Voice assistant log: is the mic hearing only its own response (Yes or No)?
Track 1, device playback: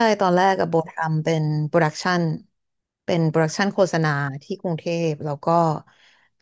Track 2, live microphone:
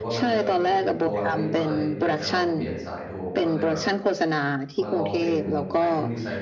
No